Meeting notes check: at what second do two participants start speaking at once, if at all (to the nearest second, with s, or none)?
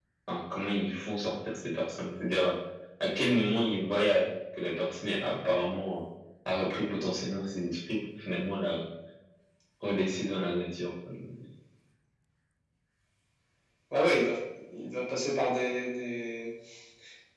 none